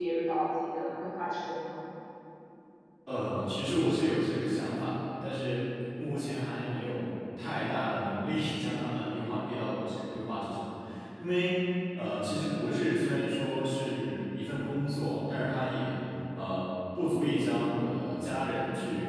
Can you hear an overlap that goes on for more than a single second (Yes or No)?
No